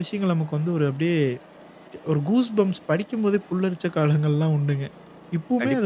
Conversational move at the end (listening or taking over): taking over